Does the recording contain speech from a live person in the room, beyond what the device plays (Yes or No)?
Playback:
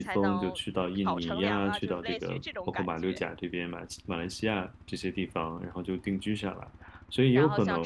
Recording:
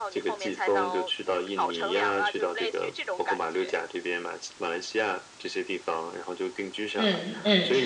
Yes